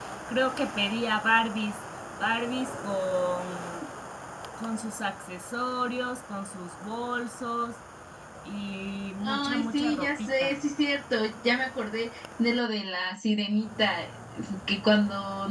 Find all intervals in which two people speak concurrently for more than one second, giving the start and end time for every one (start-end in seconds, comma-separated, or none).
9.2-10.6